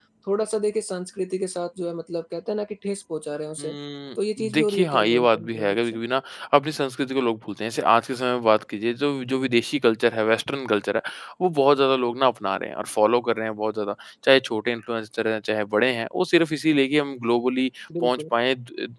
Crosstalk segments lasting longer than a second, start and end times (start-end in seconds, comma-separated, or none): 4.5-6.0